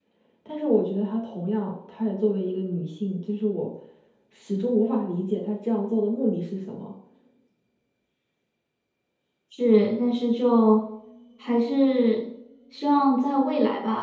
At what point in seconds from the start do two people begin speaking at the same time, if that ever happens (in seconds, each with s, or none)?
none